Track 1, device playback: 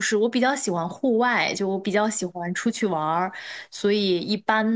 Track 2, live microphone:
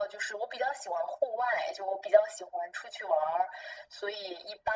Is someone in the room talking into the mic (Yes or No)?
No